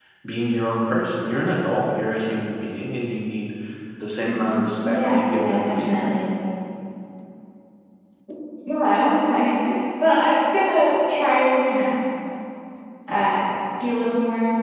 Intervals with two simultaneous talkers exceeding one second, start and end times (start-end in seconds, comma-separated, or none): 4.3-5.9